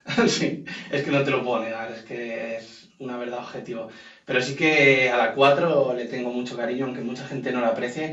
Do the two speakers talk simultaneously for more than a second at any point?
No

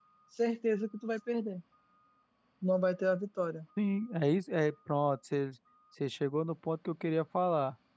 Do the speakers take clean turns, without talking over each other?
Yes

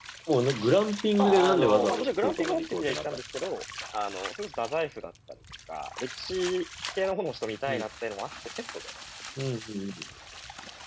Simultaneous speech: Yes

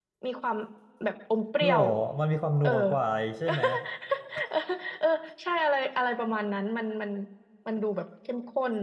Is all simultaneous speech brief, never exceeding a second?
Yes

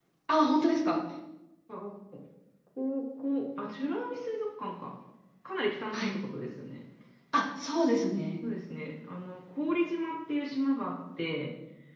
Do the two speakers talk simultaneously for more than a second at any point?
No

